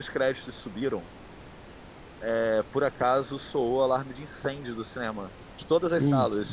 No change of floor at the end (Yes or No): Yes